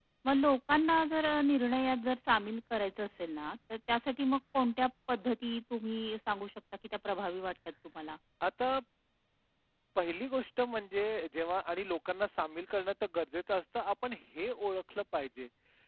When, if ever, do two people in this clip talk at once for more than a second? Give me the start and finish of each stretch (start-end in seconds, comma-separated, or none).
none